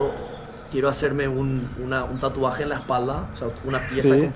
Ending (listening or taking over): listening